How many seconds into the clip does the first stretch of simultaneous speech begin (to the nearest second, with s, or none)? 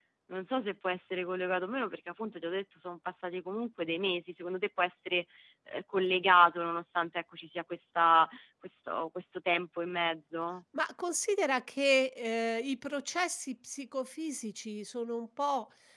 none